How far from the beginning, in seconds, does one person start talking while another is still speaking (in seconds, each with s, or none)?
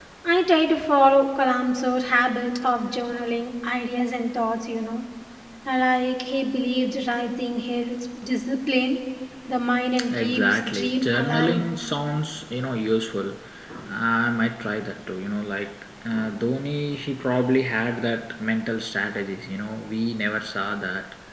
10.2 s